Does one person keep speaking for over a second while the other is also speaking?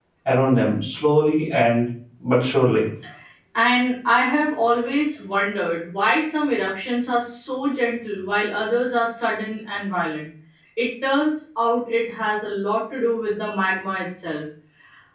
No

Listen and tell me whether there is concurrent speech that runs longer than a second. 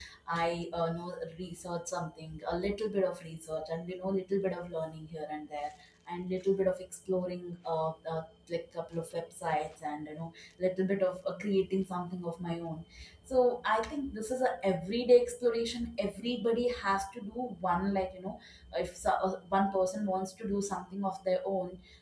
No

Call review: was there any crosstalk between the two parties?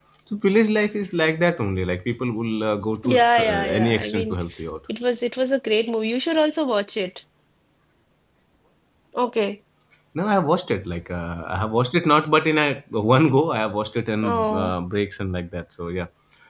Yes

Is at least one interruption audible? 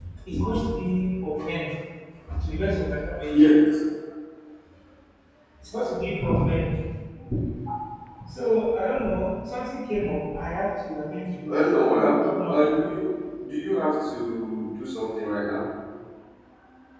Yes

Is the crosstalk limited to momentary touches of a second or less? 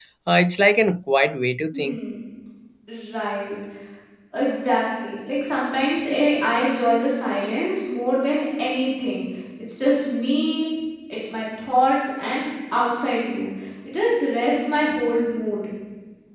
Yes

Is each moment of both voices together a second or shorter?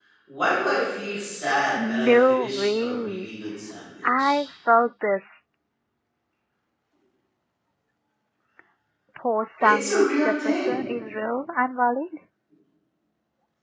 No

